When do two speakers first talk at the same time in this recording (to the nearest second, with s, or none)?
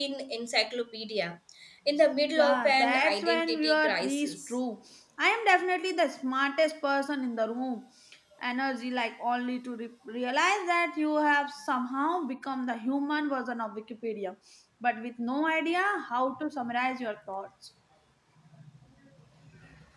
2 s